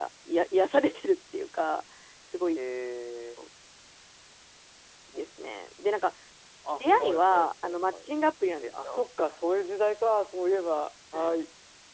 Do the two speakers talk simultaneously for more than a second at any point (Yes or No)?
Yes